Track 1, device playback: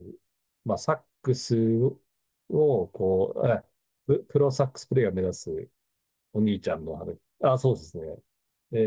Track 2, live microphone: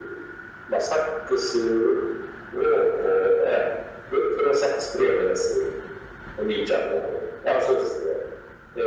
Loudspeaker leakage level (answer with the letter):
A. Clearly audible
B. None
A